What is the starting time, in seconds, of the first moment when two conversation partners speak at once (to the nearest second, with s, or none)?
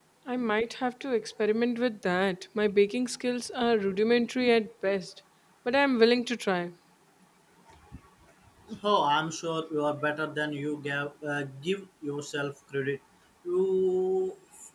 none